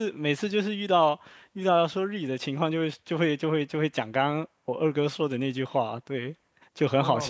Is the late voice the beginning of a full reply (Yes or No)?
Yes